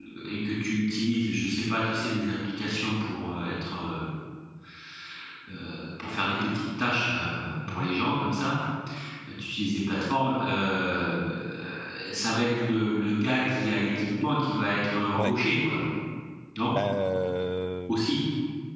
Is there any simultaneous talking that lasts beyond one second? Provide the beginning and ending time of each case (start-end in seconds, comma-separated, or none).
none